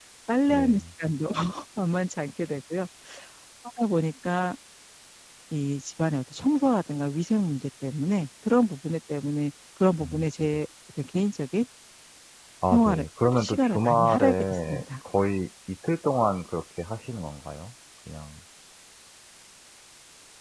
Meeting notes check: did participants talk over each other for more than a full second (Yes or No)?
Yes